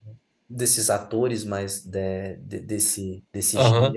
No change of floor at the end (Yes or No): No